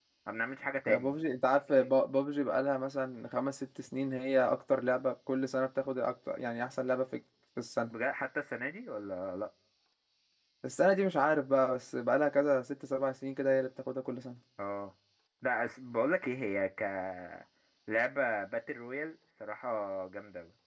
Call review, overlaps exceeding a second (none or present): none